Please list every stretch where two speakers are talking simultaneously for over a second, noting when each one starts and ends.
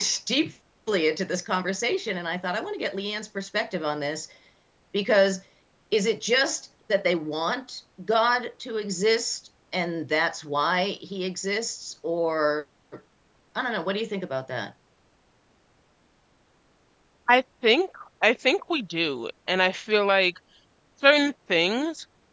none

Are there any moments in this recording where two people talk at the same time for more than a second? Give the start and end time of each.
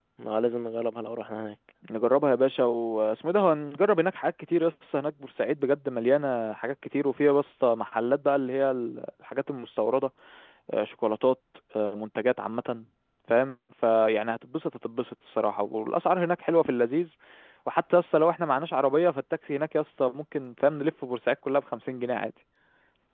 none

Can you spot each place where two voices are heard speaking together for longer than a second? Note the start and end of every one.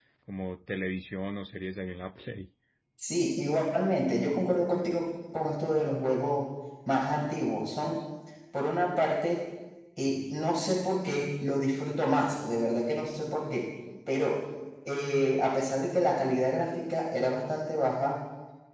none

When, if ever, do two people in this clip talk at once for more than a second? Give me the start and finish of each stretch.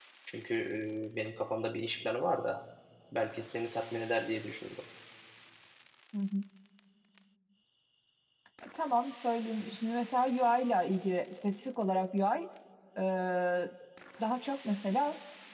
none

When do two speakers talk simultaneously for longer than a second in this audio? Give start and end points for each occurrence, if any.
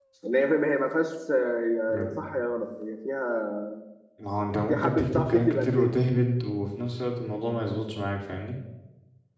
4.7-5.9

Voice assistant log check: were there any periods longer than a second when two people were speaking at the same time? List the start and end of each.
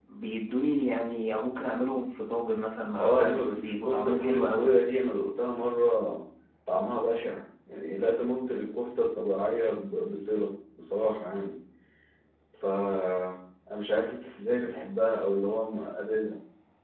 3.0-4.7

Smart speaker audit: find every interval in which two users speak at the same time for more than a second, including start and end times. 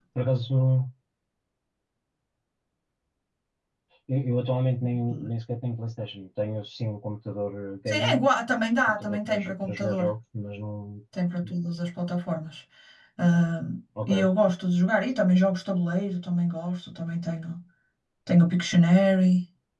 8.9-10.1

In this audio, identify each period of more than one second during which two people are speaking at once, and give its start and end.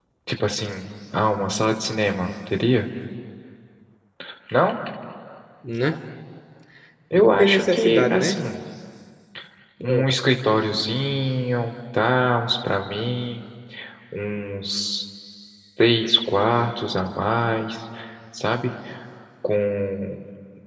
7.2-8.4

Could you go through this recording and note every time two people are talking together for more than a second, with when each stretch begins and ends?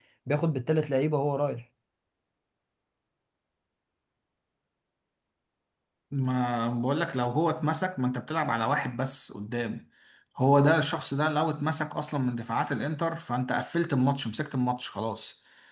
none

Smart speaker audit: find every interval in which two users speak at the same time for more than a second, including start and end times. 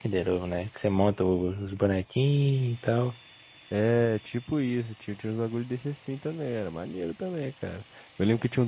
none

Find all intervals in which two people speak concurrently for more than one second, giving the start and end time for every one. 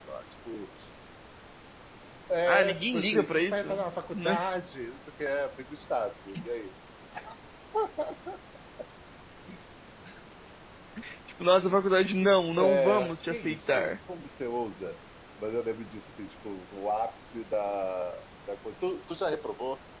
2.5-3.8, 12.6-13.9

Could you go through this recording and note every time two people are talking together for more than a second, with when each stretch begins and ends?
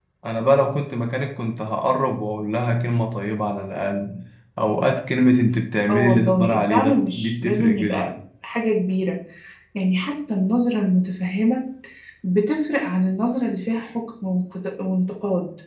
5.9-8.1

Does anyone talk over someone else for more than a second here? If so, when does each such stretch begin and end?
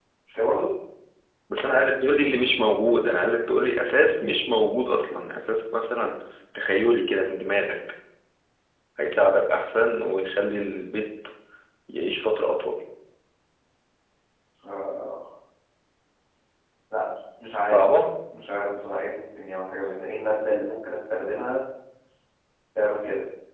none

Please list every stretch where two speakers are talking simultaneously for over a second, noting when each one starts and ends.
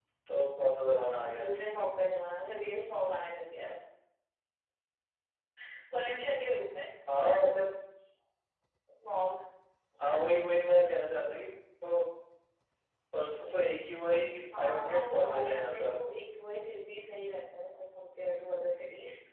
14.6-15.9

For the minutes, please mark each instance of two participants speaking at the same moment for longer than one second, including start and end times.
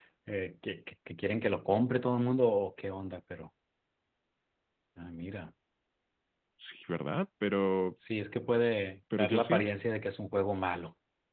none

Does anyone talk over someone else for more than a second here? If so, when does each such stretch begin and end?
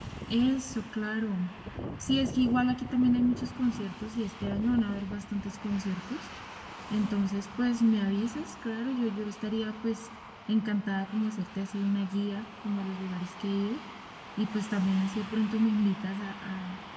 none

